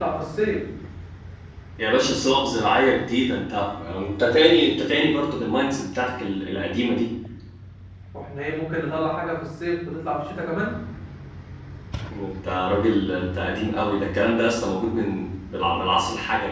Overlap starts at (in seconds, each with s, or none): none